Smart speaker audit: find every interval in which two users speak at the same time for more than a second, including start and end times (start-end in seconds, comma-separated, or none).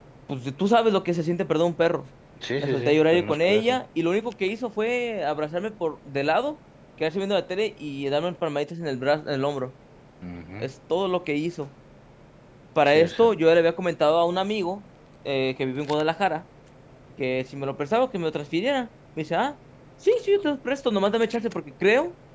2.6-3.8